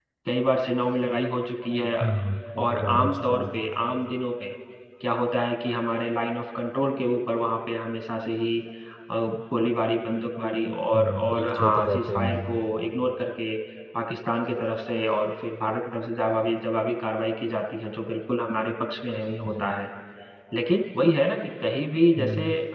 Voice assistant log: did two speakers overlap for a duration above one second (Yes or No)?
Yes